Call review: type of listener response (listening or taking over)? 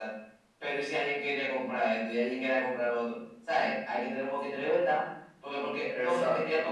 listening